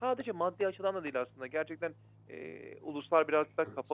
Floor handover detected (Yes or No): No